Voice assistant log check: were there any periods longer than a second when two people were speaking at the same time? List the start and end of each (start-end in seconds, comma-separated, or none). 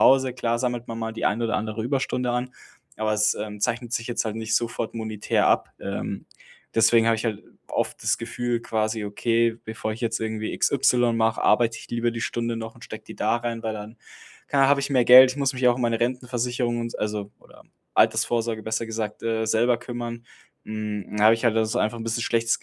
none